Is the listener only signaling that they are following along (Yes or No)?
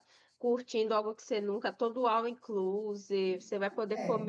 Yes